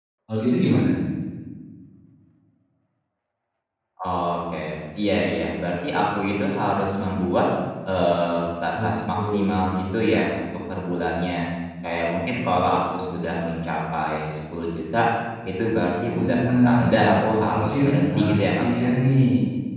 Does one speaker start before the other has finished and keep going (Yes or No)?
Yes